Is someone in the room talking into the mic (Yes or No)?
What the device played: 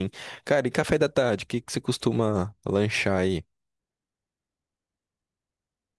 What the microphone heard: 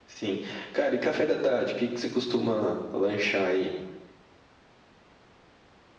No